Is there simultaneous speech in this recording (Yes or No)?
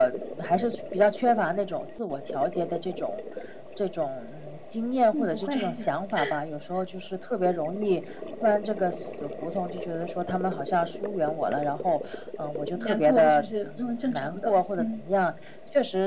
Yes